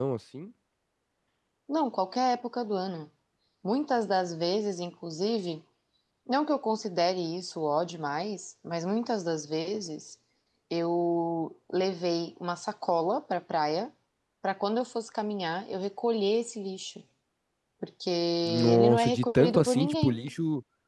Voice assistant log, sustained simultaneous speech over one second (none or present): present